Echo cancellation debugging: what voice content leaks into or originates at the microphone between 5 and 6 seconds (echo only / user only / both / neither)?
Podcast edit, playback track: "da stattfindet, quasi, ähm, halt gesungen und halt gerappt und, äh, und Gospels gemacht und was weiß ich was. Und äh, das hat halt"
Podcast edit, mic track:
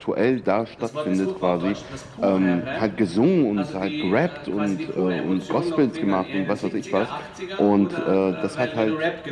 both